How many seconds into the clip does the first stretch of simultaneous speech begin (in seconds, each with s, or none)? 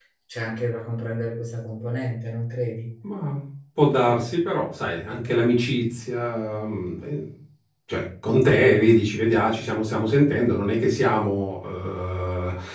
none